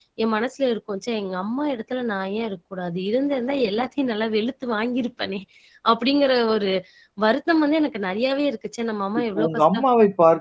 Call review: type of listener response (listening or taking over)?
taking over